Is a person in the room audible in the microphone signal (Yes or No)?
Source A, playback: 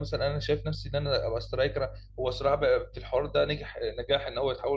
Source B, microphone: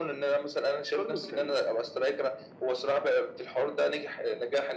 Yes